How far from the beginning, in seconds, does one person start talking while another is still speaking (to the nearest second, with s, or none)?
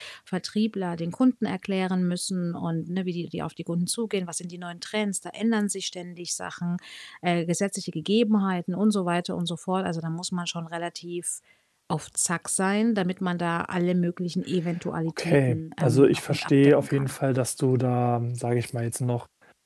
15 s